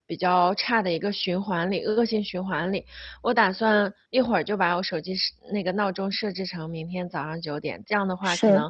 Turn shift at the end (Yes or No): No